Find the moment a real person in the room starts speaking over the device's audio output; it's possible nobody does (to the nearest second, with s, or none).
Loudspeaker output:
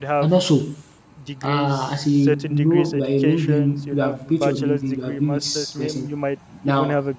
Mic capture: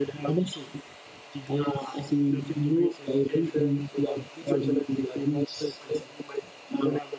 none